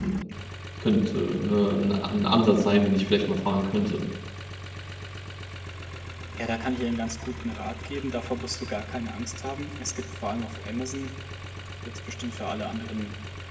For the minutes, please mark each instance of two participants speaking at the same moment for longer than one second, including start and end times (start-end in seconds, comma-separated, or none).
none